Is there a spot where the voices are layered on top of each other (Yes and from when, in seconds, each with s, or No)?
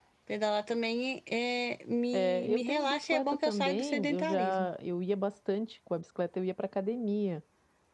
Yes, from 2.1 s